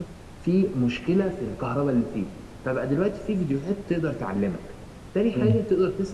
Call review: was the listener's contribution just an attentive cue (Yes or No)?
Yes